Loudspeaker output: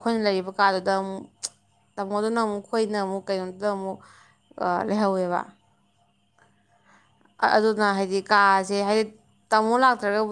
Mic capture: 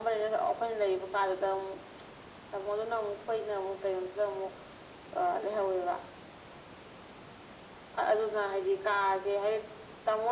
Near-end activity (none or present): none